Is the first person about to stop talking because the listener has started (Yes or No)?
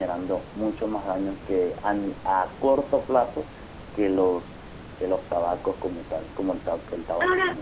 Yes